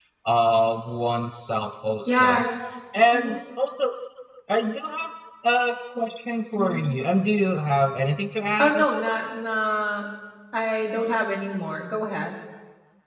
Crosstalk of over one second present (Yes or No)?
No